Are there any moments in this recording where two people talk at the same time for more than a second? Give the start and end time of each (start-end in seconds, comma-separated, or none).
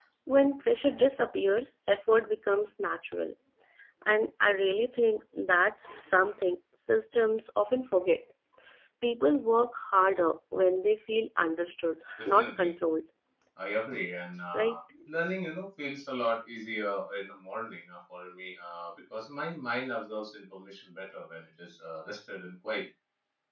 none